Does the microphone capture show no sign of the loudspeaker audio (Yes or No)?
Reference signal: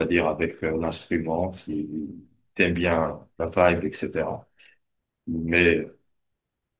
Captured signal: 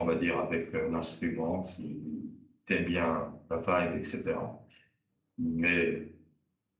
No